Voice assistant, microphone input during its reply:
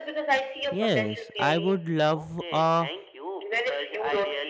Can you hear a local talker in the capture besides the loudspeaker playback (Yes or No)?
Yes